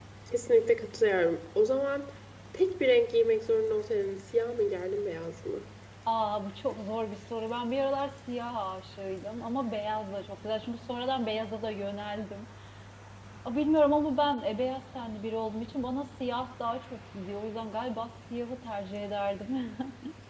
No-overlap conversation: Yes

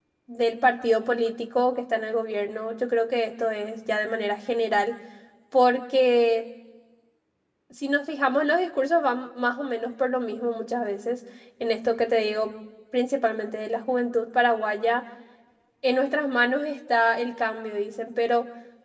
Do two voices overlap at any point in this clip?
No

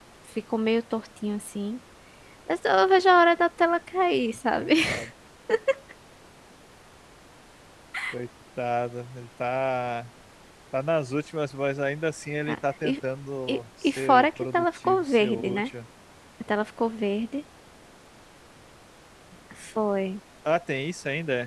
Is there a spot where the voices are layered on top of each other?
Yes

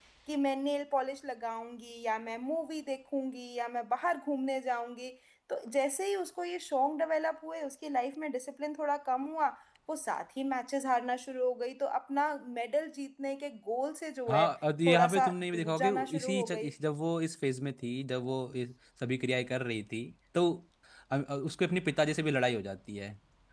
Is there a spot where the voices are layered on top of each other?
Yes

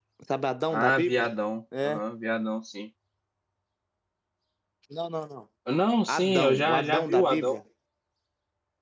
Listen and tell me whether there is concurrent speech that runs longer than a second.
Yes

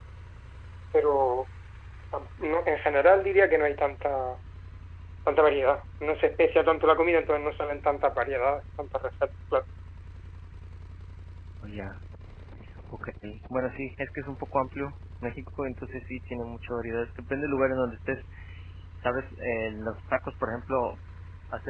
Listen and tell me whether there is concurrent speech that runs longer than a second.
No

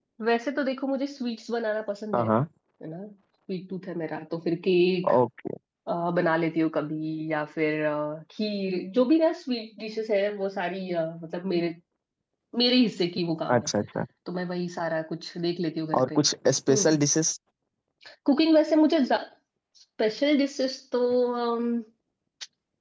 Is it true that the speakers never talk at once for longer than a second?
Yes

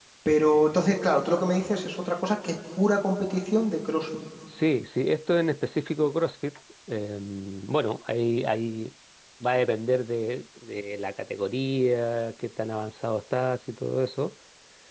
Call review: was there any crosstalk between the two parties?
No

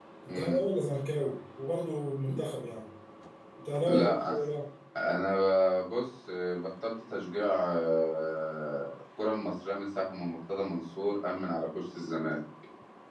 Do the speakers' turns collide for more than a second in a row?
No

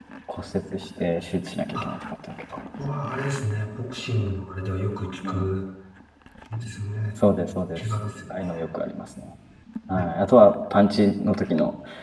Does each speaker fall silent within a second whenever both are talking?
Yes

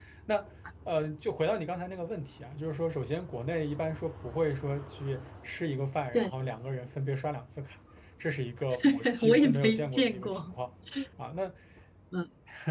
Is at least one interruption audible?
Yes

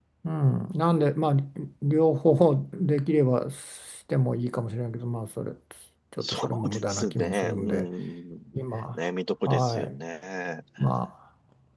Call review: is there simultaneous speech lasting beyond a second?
Yes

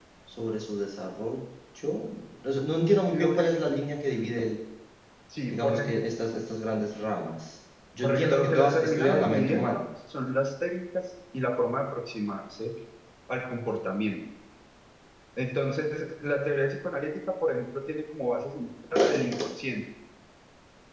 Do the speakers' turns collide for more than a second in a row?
Yes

